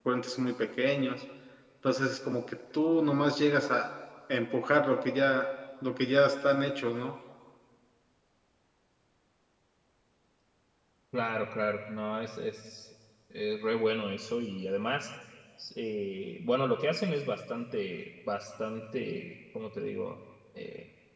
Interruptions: none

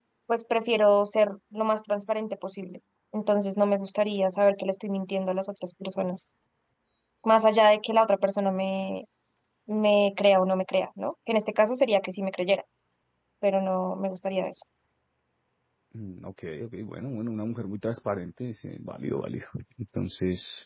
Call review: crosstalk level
none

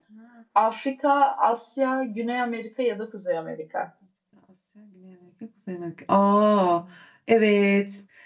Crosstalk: none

